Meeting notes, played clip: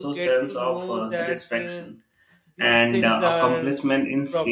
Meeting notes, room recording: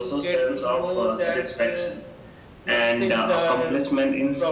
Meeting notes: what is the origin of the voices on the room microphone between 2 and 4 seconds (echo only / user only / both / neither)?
echo only